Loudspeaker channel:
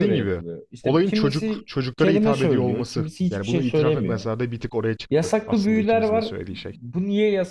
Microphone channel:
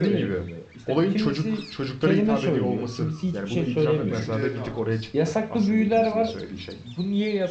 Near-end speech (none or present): present